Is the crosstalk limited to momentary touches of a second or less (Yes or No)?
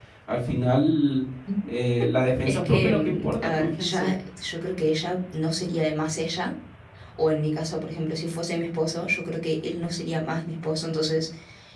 No